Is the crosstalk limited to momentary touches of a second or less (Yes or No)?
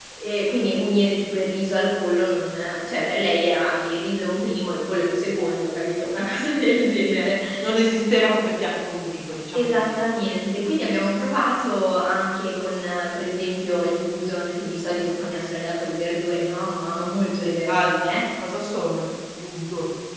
Yes